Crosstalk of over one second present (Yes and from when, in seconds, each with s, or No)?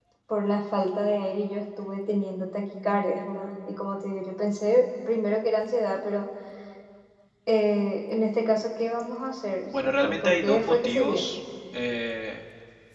Yes, from 9.7 s